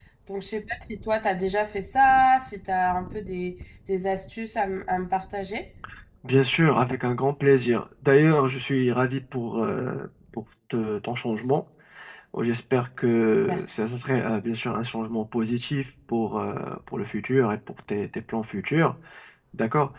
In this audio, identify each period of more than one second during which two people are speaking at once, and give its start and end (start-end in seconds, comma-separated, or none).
none